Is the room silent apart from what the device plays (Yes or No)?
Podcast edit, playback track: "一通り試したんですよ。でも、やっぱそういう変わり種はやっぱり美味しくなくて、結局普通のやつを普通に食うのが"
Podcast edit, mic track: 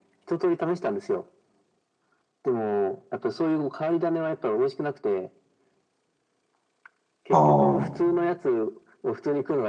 No